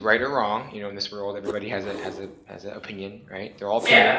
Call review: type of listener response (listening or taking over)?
taking over